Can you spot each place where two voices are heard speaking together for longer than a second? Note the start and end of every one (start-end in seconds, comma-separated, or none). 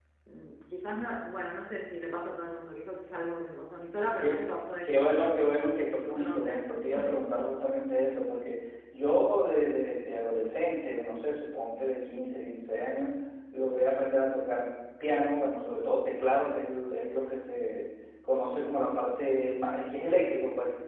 none